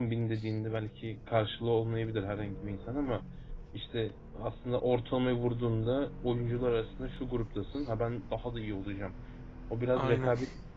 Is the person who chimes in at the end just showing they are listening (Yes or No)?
Yes